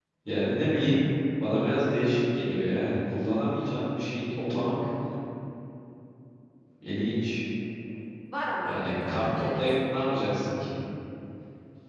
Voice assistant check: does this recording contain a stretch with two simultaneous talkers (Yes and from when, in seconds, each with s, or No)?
Yes, from 8.7 s